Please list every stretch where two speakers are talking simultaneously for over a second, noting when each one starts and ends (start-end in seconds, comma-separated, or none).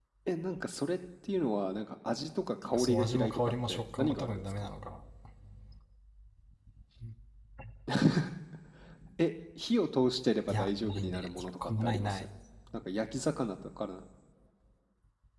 2.8-4.7, 10.5-12.2